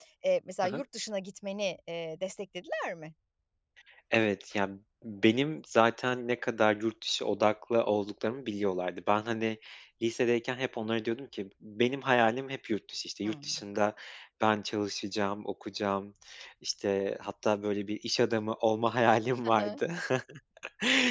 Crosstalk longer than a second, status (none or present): none